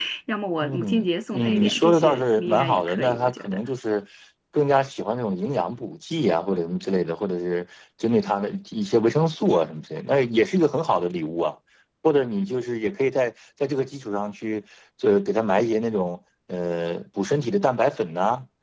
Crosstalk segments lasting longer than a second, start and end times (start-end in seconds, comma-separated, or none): 0.6-3.6